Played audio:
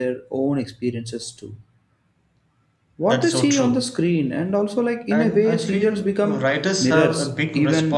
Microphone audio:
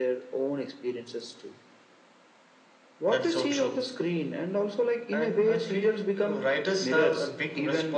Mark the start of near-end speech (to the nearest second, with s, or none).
none